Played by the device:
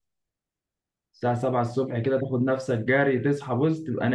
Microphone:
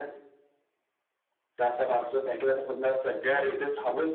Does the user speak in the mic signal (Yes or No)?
No